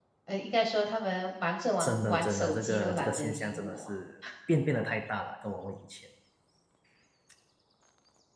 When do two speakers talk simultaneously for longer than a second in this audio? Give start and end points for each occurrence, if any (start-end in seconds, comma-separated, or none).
1.8-3.9